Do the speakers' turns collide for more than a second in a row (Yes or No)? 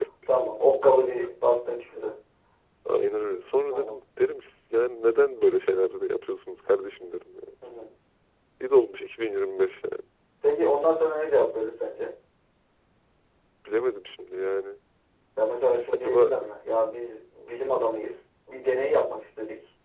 No